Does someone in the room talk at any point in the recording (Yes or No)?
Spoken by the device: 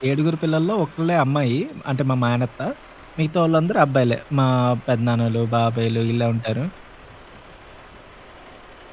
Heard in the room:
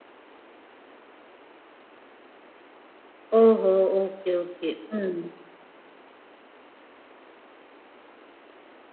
Yes